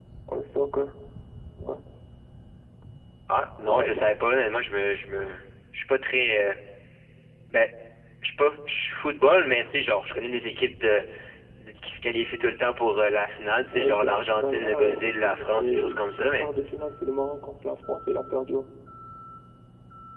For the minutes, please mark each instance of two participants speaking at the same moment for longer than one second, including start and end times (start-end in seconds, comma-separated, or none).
13.7-16.5